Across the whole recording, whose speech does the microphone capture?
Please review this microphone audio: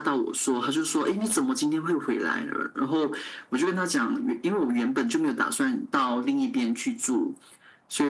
echo only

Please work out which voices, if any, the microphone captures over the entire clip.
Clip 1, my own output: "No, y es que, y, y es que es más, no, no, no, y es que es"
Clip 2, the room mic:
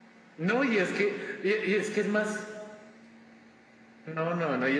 echo only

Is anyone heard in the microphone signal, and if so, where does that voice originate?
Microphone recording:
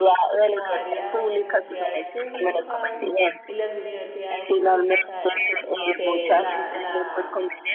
both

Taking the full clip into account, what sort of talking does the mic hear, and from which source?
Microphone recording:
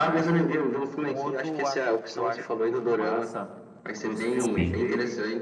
both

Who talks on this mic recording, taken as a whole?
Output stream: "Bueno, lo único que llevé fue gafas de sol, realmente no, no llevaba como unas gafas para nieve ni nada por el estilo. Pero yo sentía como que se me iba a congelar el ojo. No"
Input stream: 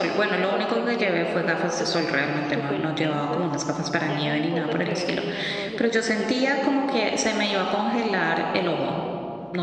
both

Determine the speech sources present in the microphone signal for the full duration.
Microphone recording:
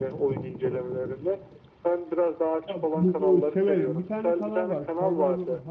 both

